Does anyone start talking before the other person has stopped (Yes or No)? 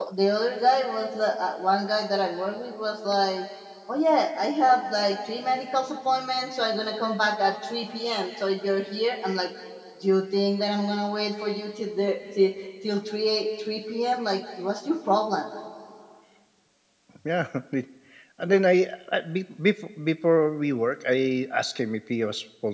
No